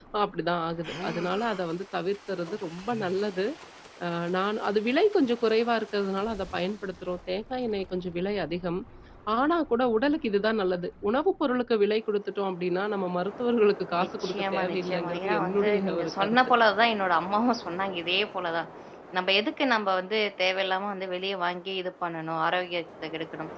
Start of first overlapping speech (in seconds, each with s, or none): 13.9 s